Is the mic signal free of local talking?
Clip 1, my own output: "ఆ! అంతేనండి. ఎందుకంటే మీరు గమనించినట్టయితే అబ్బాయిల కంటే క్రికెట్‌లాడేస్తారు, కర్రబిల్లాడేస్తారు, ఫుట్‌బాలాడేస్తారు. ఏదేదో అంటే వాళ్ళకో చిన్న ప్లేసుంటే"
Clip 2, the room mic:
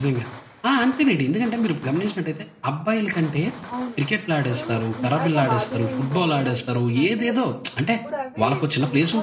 No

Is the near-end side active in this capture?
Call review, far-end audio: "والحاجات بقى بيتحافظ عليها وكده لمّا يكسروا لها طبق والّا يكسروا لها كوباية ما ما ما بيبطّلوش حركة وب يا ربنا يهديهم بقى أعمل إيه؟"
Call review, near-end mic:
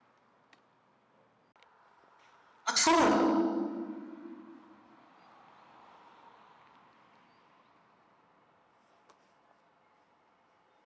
Yes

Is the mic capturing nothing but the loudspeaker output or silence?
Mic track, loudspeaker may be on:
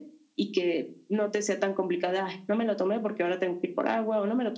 Yes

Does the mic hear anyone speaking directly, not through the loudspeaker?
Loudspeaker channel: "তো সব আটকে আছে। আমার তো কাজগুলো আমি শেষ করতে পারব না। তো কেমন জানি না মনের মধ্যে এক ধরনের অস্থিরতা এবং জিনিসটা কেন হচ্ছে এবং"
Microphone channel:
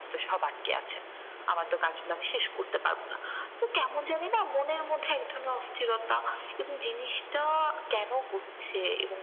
No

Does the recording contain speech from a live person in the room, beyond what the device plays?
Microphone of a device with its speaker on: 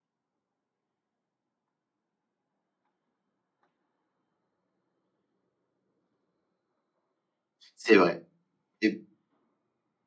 Yes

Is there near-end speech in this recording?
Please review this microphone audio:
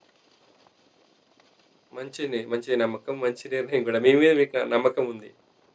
Yes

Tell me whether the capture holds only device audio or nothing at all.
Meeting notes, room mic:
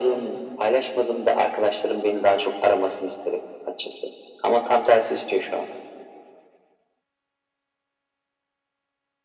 Yes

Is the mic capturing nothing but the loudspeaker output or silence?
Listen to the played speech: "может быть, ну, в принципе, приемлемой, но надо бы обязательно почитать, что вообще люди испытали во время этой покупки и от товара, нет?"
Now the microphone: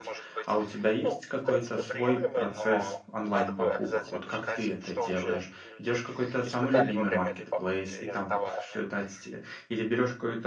No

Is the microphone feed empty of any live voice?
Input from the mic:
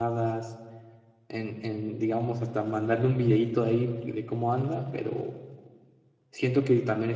No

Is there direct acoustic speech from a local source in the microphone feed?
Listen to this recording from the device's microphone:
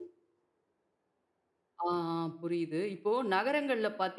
Yes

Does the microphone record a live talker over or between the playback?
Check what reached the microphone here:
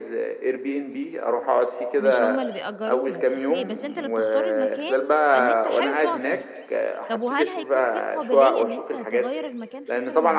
Yes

